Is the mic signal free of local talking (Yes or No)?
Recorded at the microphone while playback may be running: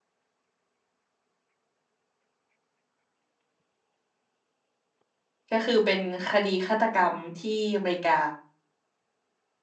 No